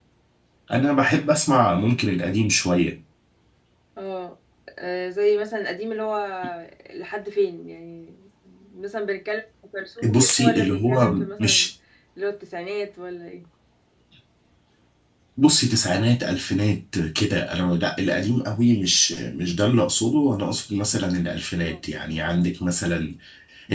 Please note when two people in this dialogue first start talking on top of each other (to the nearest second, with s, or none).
10 s